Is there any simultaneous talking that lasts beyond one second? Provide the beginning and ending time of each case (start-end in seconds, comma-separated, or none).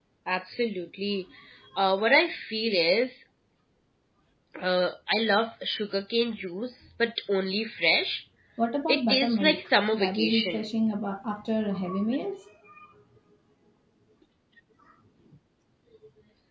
8.9-10.6